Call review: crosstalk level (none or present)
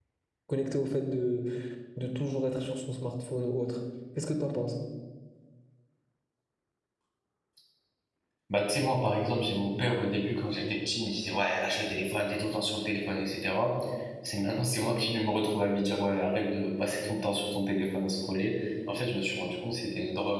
none